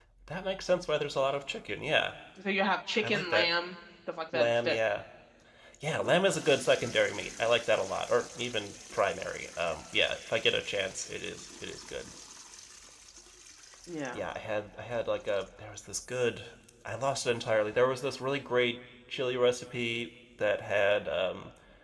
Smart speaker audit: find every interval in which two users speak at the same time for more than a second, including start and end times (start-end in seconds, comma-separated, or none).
none